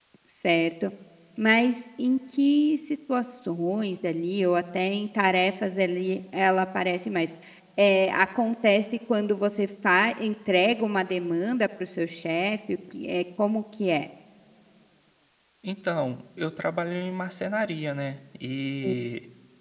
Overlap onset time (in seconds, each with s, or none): none